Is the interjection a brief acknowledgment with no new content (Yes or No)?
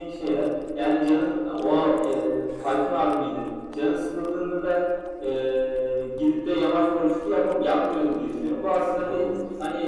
Yes